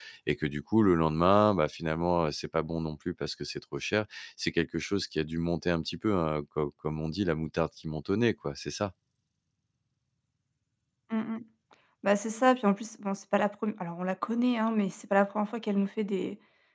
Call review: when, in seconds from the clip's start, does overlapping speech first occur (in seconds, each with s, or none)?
none